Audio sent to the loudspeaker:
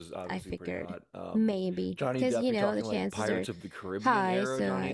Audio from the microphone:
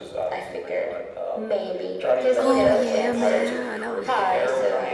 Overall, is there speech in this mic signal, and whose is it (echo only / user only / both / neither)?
both